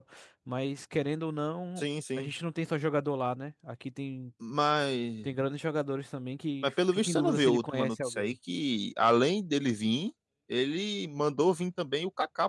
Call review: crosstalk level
present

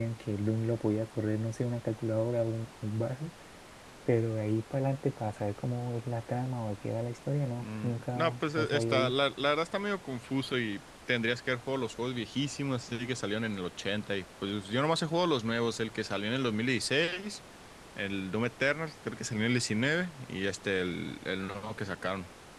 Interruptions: present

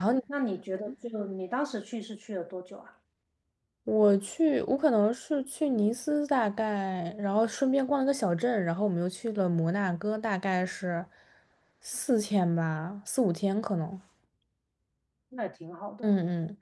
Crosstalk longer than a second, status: none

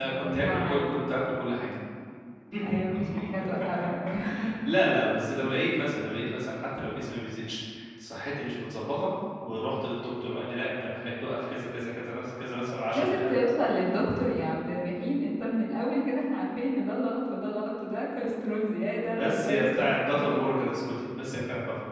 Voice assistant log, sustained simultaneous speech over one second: present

